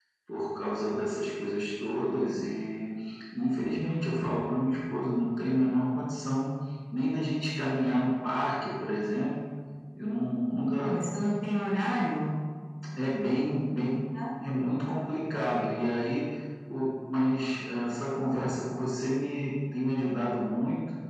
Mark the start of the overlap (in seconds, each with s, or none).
none